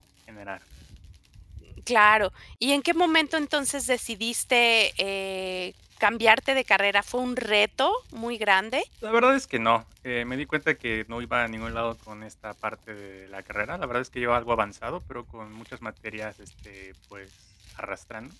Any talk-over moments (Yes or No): No